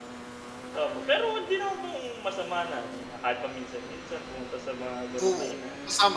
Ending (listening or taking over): taking over